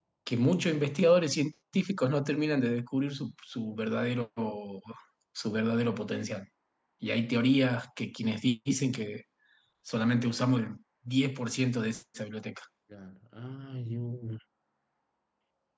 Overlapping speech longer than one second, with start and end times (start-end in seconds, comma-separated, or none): none